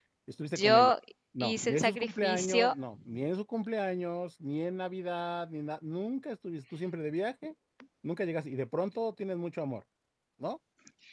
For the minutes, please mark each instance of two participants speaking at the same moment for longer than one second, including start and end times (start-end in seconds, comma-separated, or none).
1.4-2.7